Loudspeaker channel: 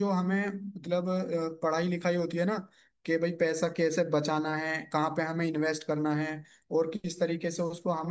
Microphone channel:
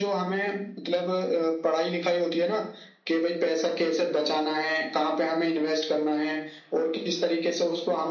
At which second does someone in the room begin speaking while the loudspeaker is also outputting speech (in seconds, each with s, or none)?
none